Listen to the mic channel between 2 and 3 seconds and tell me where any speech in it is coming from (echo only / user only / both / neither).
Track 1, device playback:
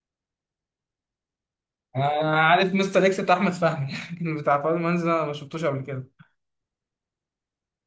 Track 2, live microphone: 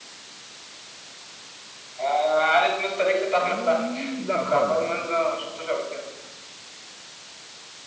echo only